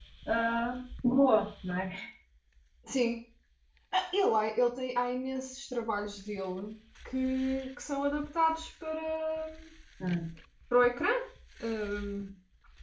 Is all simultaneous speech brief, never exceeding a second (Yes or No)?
Yes